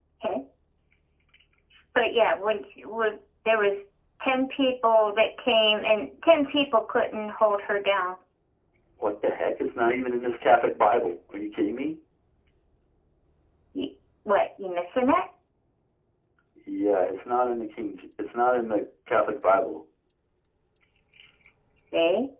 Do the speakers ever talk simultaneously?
No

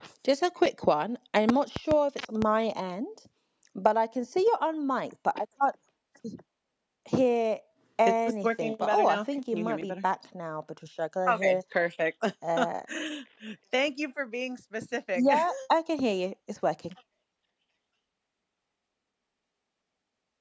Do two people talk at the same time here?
Yes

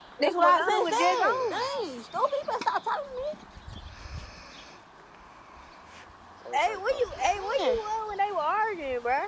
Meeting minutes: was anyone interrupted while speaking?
Yes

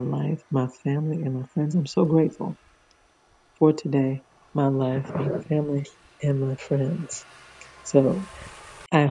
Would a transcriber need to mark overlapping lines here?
No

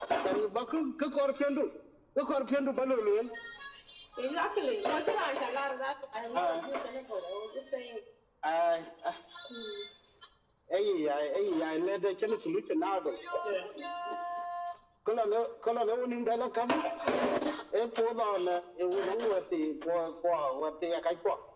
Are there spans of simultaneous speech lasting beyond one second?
No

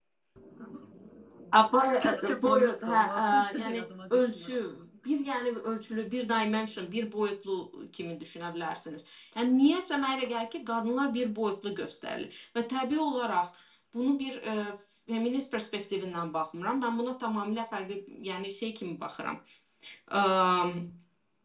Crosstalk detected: Yes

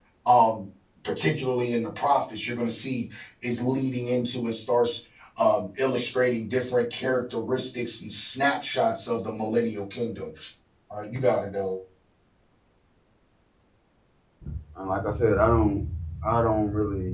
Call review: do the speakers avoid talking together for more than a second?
Yes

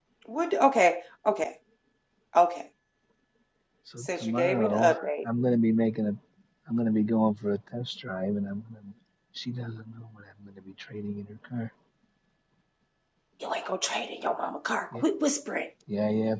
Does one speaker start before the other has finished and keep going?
Yes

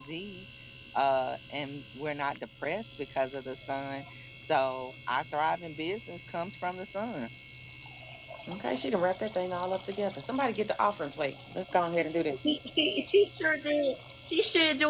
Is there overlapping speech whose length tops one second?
No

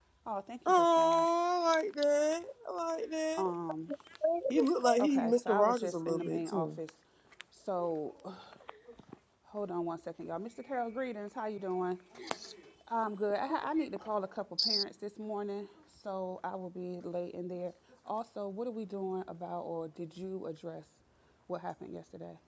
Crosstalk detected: Yes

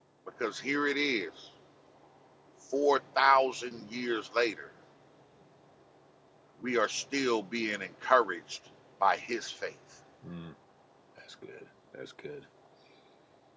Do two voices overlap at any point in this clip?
No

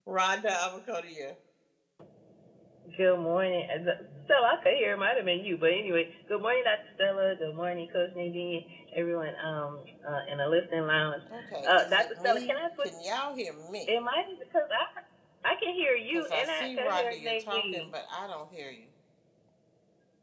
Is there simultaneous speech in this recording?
Yes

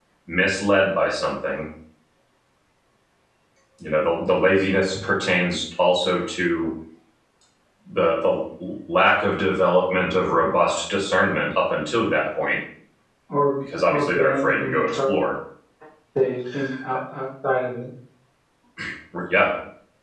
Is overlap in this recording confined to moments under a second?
No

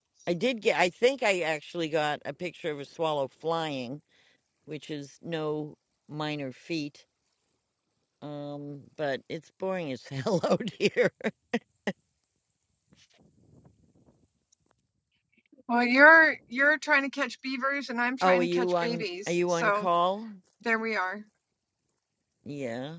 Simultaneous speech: Yes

